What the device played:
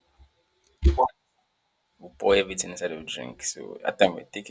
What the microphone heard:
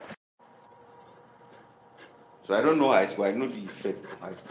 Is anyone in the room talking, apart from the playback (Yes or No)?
Yes